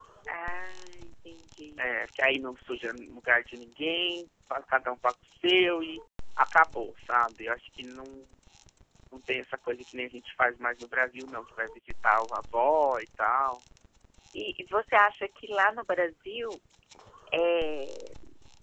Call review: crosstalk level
none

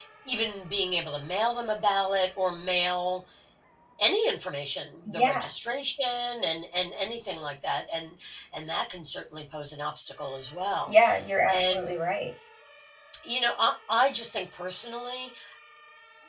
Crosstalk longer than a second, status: none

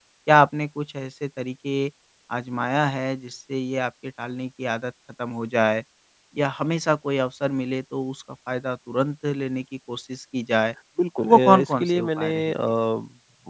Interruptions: present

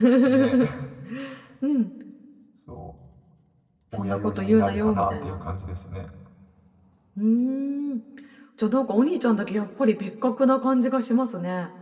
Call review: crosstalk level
present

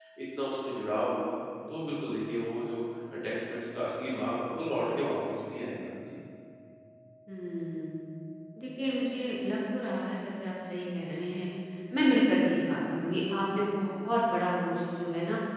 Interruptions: none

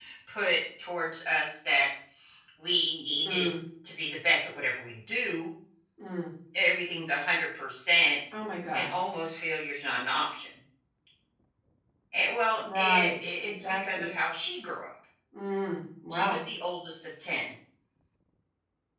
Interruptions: present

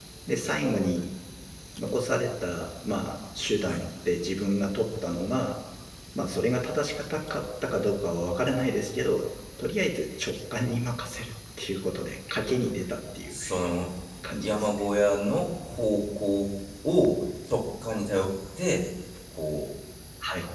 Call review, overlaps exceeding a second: none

